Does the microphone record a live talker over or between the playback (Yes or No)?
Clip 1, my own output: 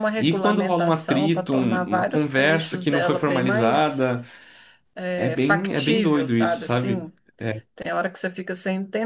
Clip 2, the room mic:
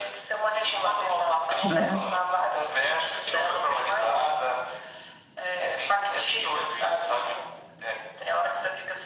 Yes